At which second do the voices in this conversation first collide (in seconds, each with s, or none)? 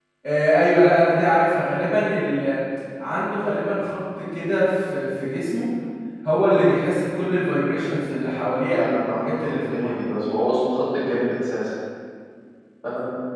8.7 s